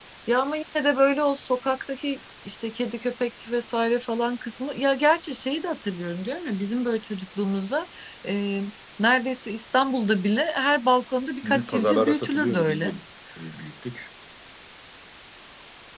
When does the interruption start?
11.4 s

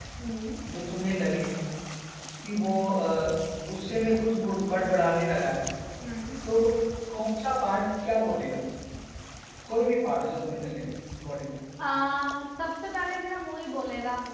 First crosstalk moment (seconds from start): none

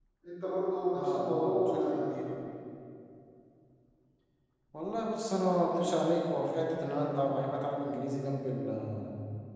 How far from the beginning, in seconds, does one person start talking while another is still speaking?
1.0 s

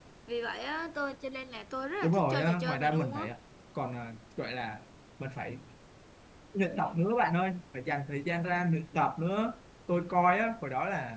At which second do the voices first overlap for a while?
2.0 s

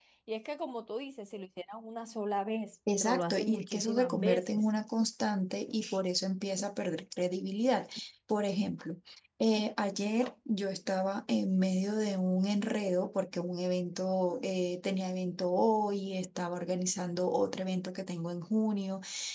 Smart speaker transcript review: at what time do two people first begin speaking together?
2.9 s

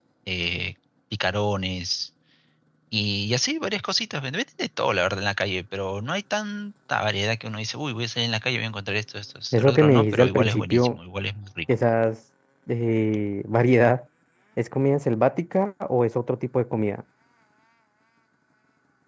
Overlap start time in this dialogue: 9.5 s

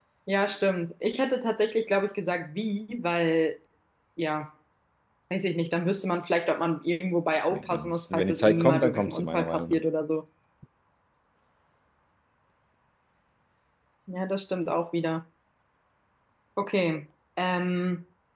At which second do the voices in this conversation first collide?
7.5 s

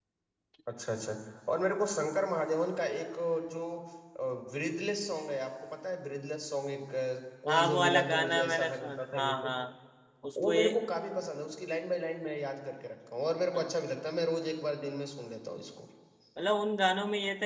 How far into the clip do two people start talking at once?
7.5 s

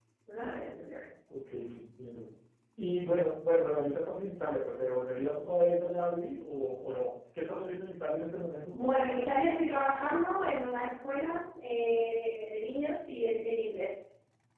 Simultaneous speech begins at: none

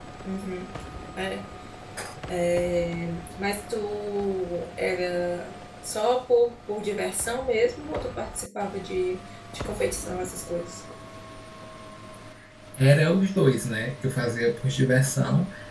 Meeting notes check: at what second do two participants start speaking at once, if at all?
none

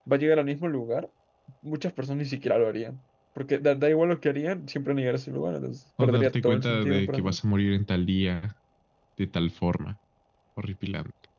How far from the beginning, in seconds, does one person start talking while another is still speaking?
6.0 s

